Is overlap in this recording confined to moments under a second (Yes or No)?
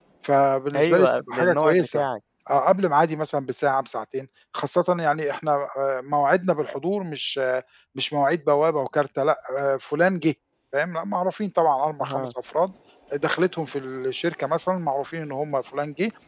No